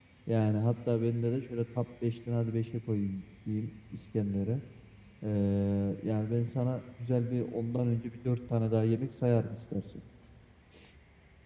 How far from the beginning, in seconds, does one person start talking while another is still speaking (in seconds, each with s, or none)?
none